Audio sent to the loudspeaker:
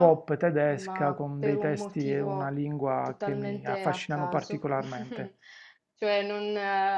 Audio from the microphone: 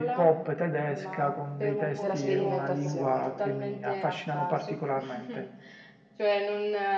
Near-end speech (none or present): present